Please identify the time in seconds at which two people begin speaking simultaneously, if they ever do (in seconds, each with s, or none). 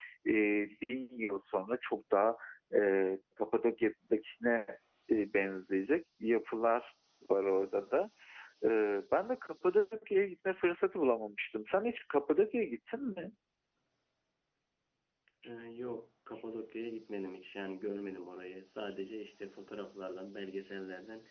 none